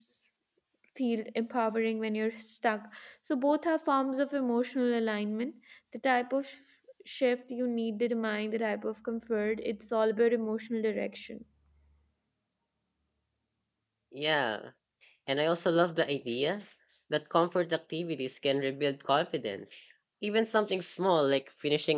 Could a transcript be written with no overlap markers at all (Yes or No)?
Yes